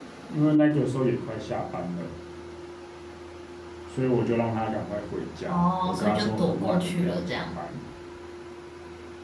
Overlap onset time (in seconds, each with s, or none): 5.5 s